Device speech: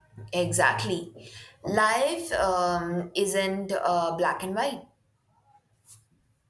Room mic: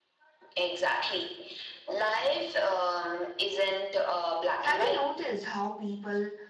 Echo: present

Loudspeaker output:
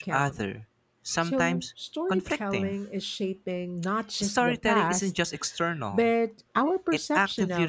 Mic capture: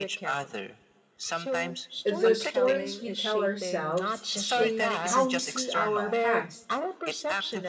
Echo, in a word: present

